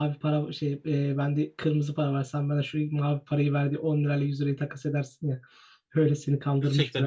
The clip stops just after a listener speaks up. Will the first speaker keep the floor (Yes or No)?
No